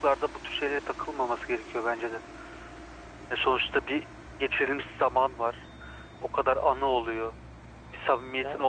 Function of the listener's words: listening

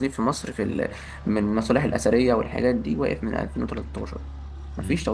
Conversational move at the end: taking over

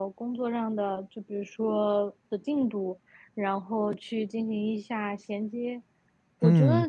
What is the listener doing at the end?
listening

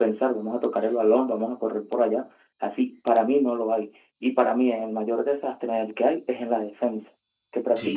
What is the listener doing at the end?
listening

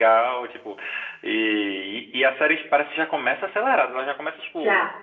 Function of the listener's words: listening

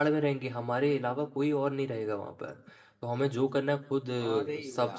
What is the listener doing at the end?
listening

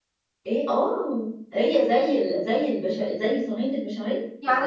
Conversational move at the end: taking over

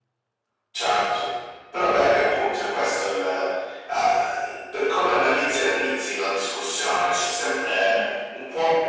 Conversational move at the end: listening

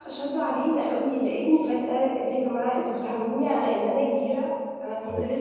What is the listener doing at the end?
listening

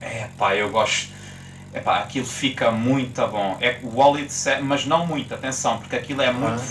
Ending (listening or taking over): listening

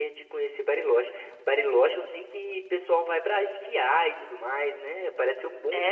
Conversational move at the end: taking over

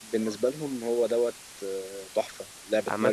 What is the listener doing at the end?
taking over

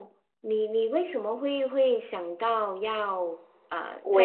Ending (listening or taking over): taking over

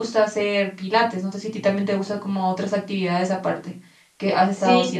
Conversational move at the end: taking over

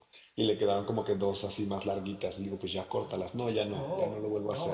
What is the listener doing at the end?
taking over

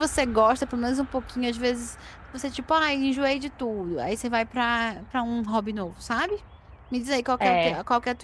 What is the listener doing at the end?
listening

